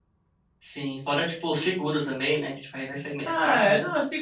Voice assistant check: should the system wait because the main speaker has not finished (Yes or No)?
No